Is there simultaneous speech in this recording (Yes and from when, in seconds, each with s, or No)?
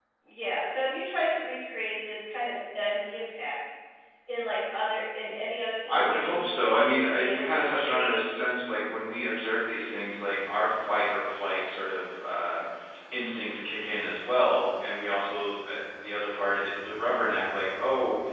Yes, from 5.9 s